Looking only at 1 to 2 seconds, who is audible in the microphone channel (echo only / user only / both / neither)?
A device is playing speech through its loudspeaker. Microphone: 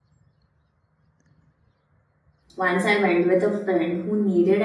neither